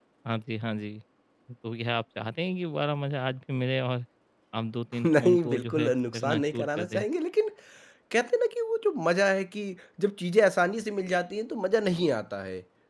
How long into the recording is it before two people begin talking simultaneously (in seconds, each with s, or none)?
5.0 s